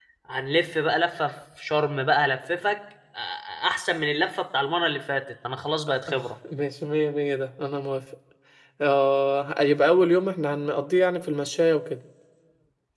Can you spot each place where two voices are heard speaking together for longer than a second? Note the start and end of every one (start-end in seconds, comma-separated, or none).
none